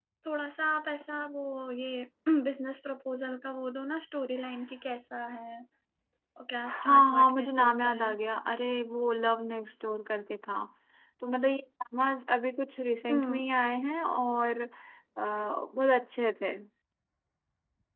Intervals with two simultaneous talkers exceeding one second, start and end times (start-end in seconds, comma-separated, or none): 6.7-8.1